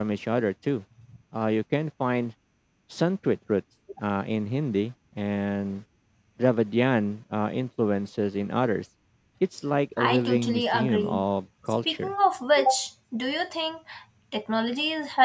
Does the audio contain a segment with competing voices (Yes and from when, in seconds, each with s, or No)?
Yes, from 10.0 s